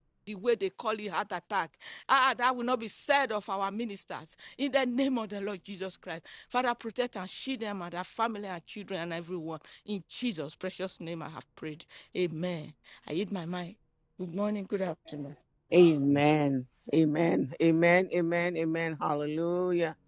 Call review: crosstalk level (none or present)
none